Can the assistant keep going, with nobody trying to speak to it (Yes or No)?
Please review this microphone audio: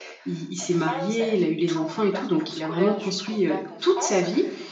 No